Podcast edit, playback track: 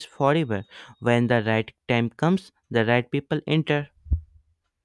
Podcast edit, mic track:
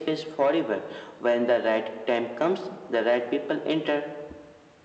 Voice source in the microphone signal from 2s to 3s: echo only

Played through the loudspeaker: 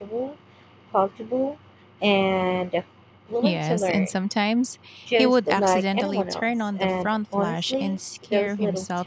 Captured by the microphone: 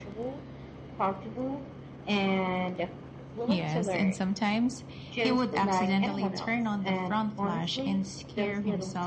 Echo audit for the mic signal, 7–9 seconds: echo only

